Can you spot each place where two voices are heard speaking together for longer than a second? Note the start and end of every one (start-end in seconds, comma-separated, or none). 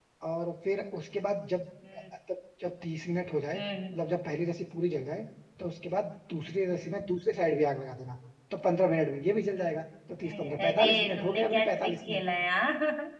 10.3-12.2